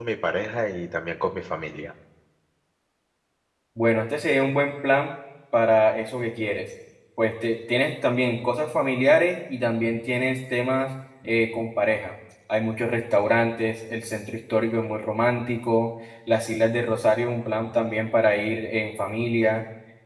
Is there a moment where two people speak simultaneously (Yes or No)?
No